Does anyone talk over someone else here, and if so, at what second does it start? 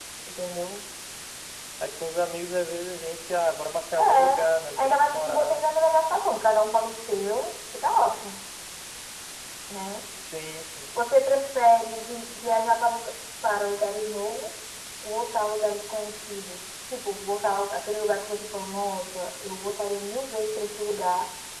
4.0 s

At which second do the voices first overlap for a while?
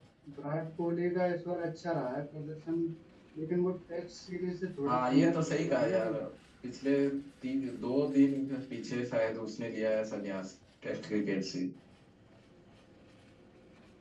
4.8 s

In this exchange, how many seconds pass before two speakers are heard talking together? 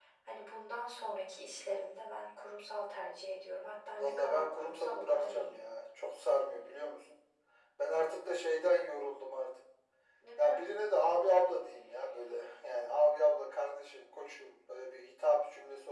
4.0 s

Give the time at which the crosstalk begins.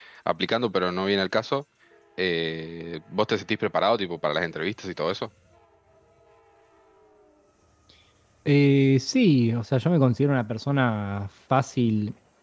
none

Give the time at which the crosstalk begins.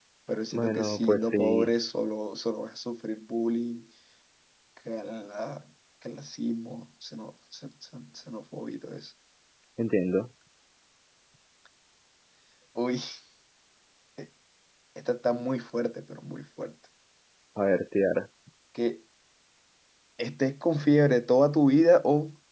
0.5 s

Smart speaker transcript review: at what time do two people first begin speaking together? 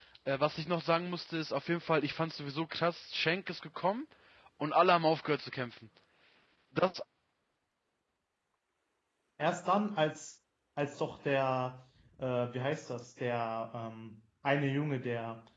none

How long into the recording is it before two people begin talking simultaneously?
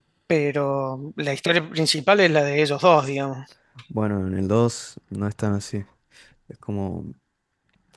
none

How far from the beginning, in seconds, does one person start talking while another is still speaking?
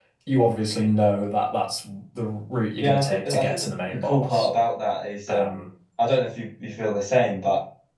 2.8 s

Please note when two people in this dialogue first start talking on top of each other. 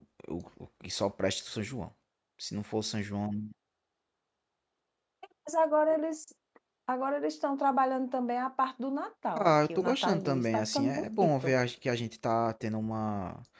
9.3 s

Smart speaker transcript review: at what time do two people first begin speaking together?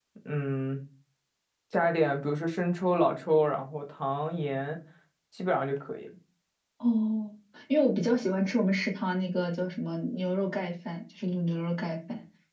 none

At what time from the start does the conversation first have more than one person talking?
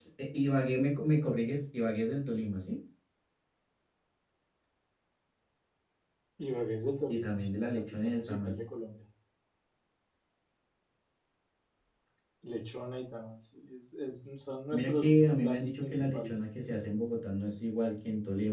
7.1 s

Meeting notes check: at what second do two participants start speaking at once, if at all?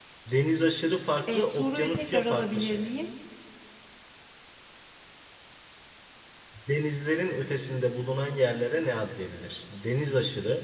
1.3 s

